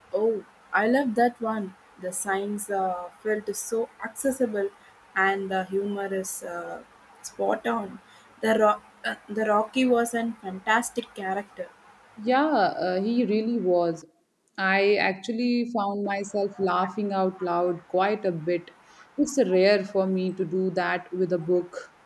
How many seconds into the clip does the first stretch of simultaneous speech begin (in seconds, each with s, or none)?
none